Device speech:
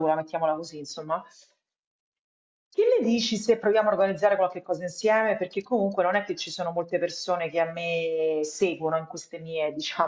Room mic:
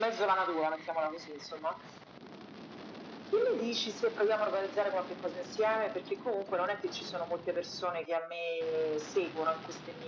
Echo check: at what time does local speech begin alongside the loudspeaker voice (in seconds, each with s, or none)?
none